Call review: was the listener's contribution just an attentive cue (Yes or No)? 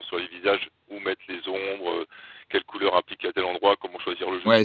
No